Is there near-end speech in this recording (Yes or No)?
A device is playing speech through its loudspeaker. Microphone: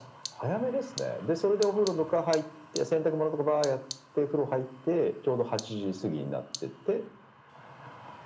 No